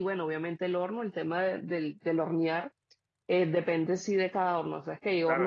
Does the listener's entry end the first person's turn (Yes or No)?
Yes